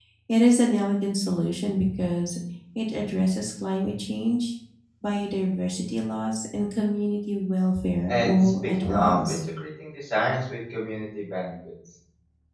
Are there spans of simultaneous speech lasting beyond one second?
Yes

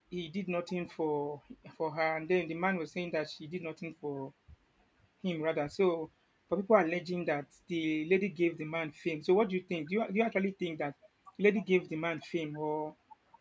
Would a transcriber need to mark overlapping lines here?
No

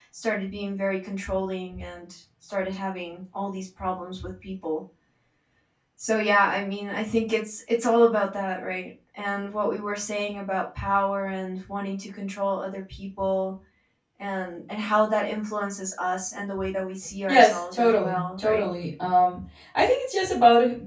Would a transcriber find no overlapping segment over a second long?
No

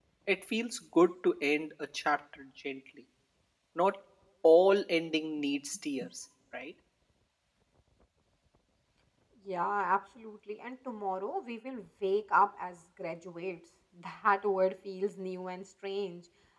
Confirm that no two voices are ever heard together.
Yes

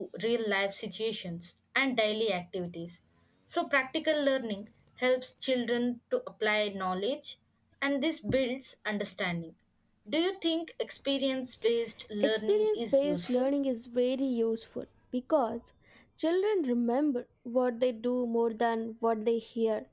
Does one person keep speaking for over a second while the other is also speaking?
Yes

